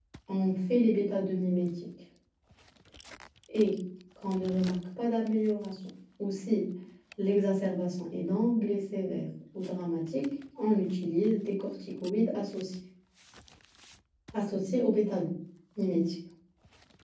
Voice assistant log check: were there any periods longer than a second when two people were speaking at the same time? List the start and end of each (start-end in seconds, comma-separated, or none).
none